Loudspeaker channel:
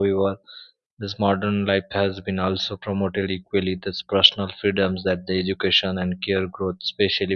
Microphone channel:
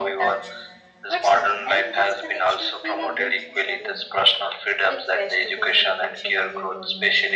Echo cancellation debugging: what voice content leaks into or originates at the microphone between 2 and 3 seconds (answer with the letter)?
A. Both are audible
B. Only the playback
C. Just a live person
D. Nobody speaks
A